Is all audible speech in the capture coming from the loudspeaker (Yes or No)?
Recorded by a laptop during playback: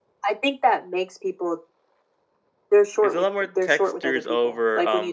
No